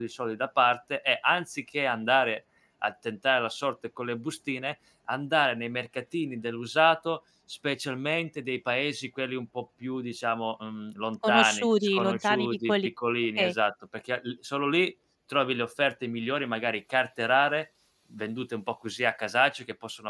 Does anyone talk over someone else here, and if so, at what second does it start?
11.2 s

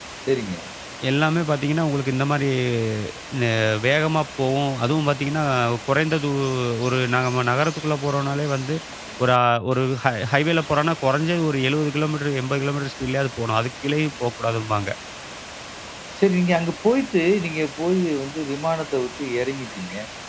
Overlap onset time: none

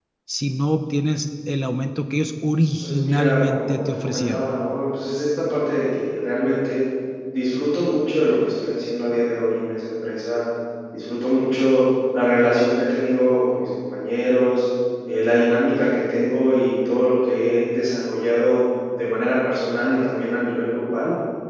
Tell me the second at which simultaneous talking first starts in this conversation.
2.8 s

